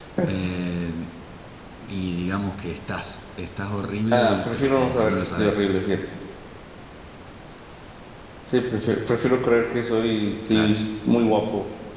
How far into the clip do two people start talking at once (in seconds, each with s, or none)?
4.1 s